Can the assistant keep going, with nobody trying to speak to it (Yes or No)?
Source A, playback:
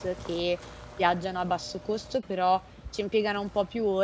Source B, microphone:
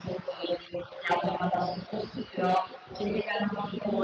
Yes